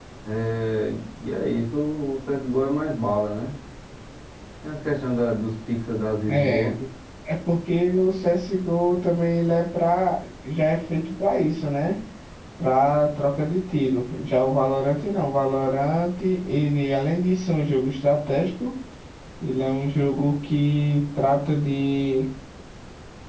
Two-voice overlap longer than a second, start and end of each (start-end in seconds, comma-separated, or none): none